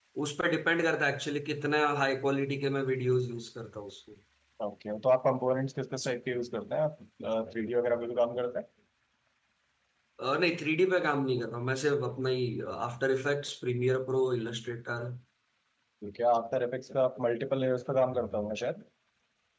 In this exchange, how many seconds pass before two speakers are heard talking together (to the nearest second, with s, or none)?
none